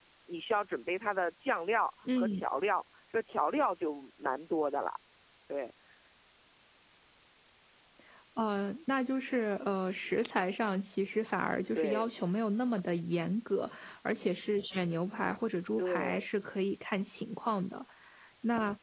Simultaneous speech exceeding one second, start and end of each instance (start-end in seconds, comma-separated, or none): none